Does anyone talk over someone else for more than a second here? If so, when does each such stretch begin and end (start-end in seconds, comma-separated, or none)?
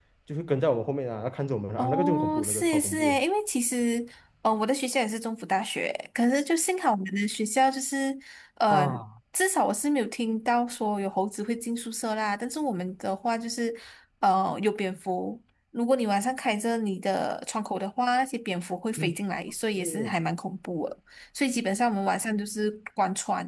1.8-3.2